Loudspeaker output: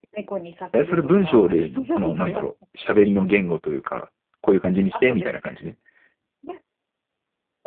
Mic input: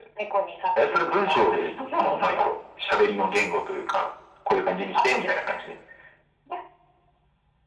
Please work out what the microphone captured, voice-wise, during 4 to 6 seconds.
echo only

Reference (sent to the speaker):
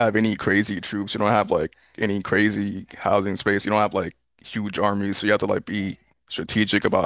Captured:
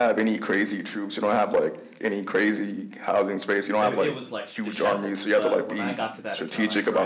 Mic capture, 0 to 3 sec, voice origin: echo only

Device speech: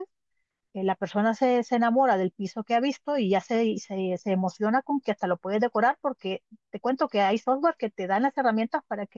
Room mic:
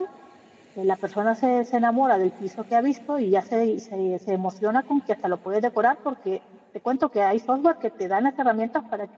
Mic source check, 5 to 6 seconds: echo only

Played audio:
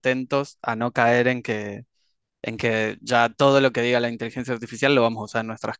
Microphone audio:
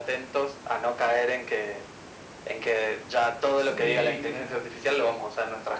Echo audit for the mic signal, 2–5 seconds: both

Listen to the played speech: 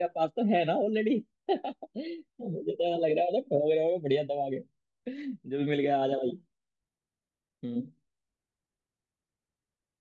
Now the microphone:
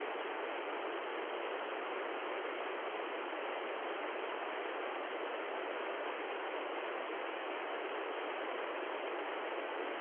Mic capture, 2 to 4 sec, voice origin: neither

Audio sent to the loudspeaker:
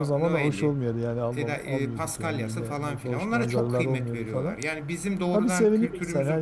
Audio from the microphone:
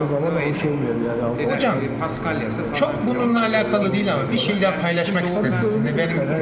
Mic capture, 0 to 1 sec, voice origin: echo only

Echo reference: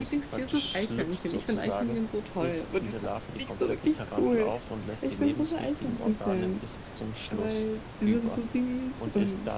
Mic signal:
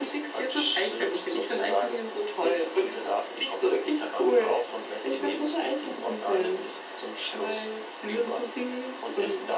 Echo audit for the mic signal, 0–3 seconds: echo only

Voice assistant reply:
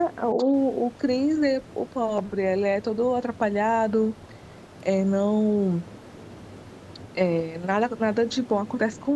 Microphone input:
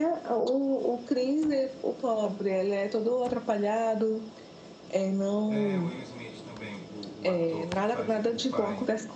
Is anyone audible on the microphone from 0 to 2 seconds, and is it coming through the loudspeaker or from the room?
echo only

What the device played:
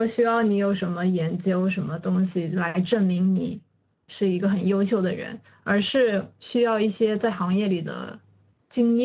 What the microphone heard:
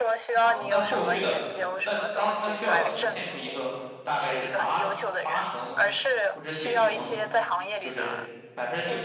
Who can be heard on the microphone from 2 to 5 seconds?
both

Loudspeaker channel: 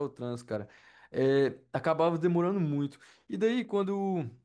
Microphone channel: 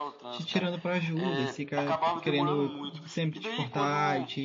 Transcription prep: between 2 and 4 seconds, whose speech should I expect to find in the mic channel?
both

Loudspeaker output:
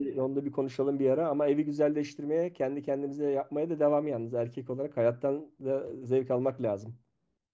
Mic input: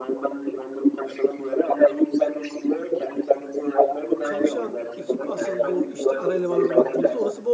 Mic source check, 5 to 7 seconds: both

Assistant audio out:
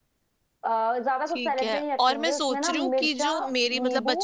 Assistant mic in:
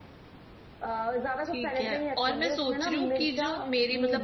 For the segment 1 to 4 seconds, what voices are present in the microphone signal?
echo only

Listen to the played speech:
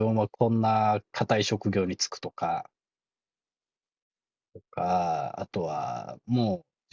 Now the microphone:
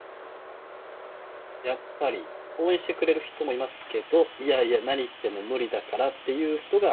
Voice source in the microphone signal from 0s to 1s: neither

